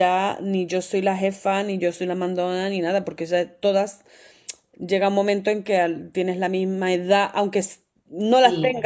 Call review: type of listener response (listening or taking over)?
listening